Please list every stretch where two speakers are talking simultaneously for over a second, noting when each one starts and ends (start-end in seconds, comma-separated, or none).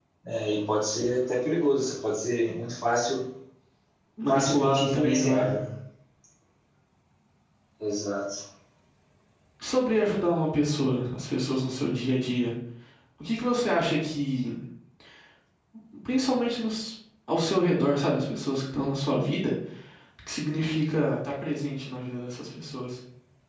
4.3-5.5